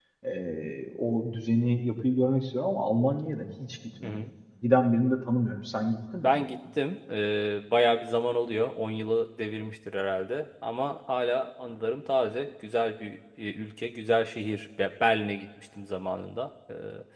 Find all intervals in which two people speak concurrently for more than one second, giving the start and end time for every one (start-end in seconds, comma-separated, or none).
none